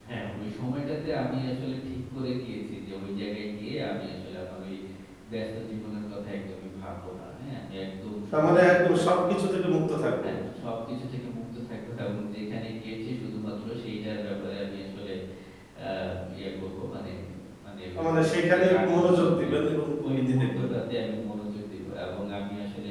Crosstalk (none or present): present